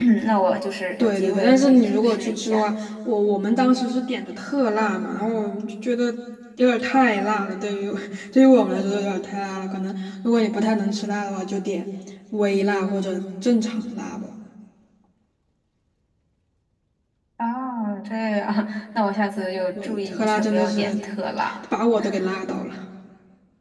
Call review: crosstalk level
present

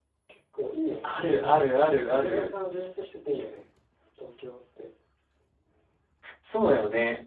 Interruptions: present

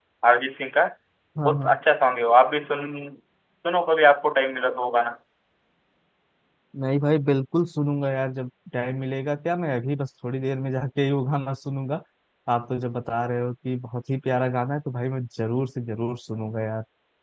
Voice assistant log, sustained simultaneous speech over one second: none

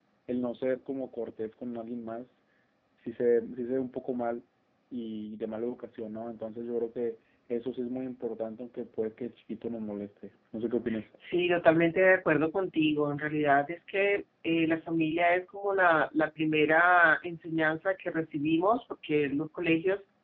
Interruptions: none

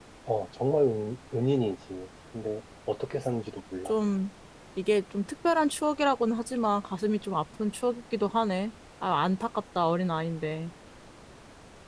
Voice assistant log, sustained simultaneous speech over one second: none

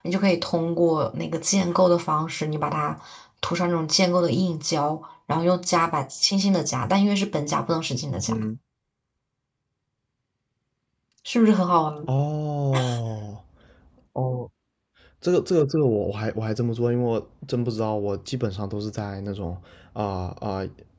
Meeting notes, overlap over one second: none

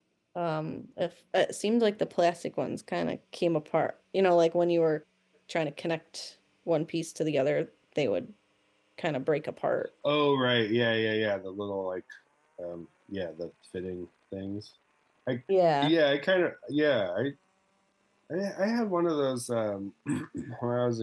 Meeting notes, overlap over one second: none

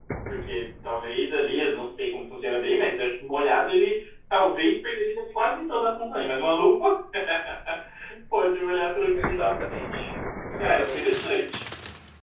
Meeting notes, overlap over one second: none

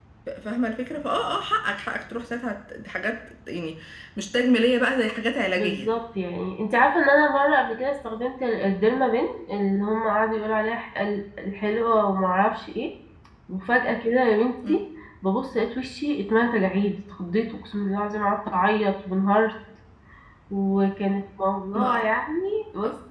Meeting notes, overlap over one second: none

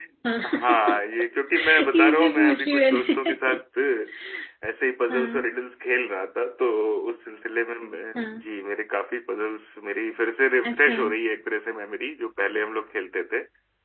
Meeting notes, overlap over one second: present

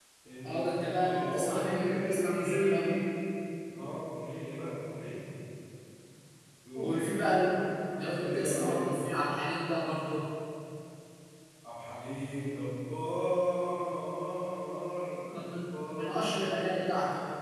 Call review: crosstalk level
present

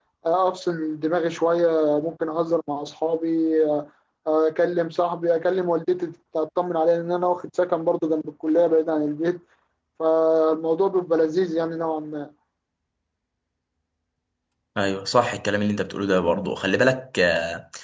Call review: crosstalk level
none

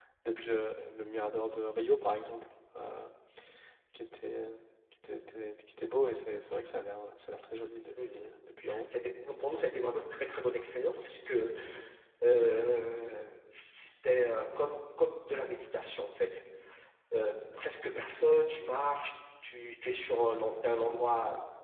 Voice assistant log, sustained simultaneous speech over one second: none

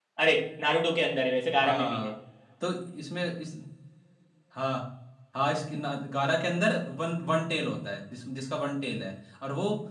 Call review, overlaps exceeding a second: none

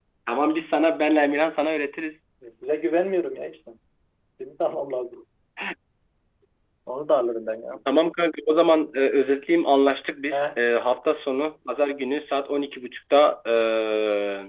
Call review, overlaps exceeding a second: none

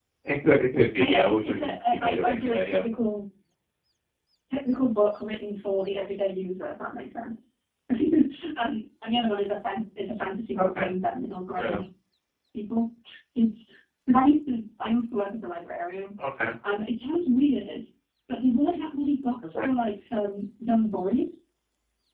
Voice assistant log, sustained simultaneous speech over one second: present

